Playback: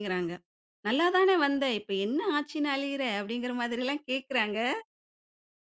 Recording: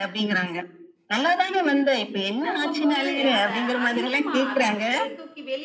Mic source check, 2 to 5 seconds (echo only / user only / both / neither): both